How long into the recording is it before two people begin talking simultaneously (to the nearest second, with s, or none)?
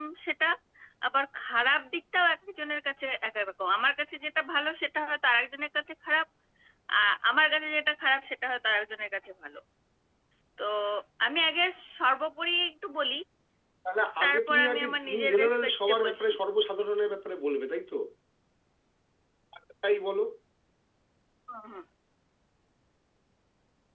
14 s